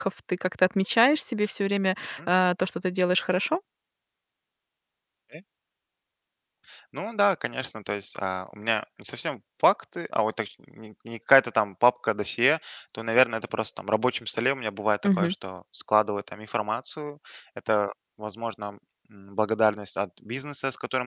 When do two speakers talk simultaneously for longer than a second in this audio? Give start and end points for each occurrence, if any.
none

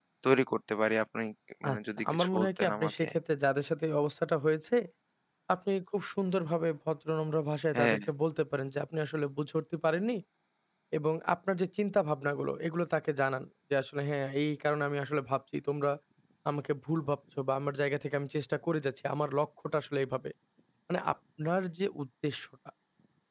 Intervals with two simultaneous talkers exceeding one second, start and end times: 1.7-3.1

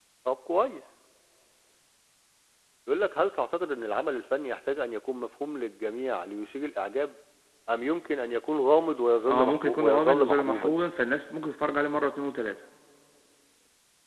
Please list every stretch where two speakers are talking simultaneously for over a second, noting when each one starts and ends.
9.3-10.8

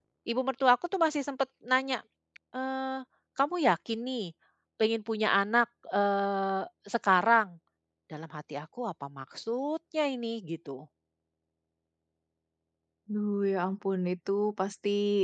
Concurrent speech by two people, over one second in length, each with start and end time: none

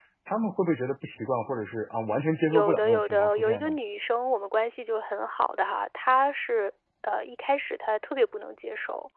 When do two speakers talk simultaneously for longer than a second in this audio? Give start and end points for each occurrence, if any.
2.5-3.7

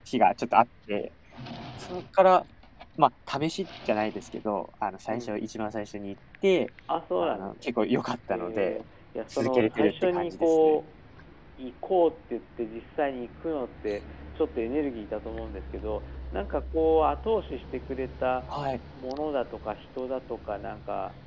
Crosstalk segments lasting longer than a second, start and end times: 9.3-10.8

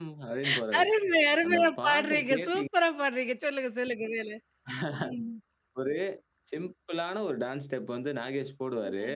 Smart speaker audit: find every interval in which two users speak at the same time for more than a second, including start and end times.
1.4-2.6

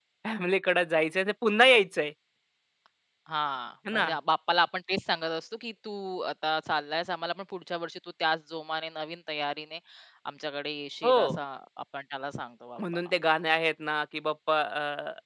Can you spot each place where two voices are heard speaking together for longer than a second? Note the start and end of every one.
none

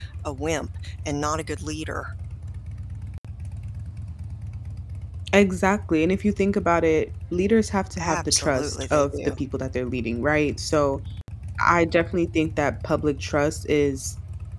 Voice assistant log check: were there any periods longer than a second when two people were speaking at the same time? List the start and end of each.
8.0-9.3

